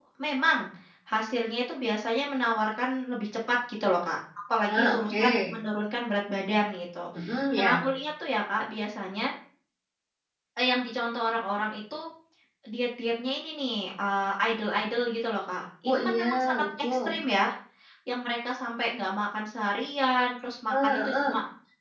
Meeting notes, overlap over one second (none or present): present